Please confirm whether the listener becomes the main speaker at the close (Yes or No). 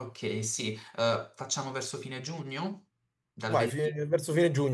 Yes